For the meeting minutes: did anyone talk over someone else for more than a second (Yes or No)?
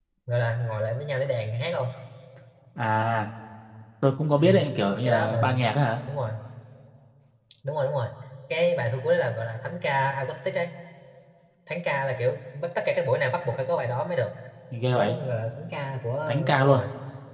No